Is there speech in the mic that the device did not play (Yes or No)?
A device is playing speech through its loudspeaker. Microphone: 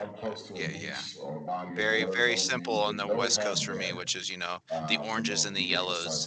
Yes